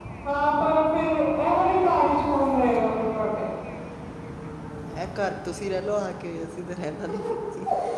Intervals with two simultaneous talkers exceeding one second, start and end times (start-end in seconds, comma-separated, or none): none